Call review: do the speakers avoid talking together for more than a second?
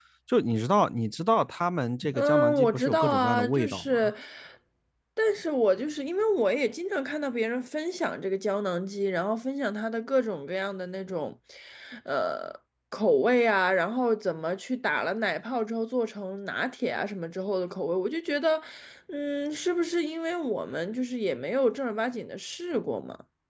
No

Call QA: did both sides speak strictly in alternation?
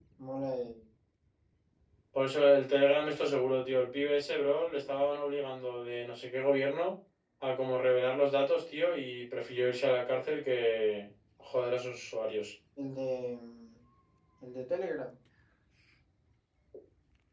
Yes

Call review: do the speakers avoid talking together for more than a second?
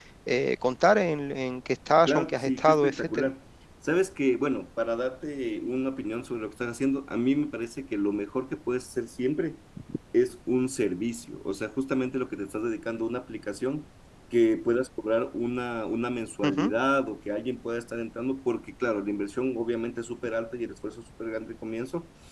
No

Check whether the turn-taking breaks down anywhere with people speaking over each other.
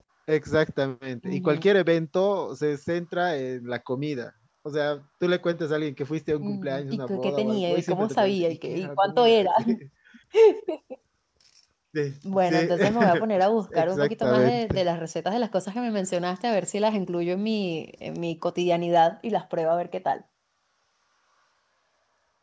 Yes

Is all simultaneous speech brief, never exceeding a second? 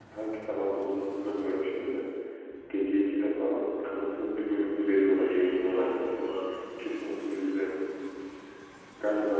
No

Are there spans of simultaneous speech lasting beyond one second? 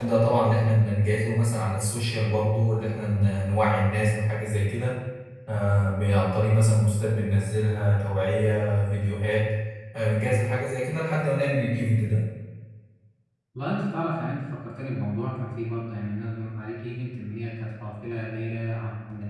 No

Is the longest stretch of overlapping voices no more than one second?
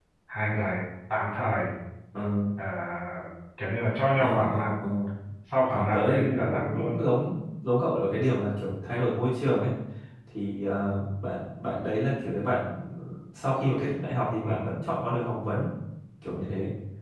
No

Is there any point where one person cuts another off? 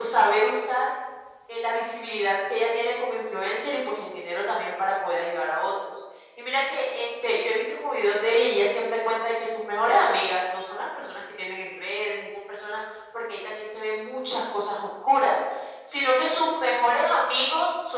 No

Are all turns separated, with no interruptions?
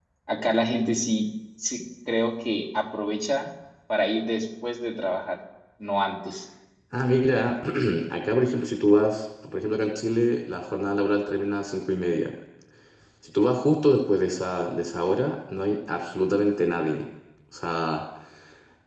Yes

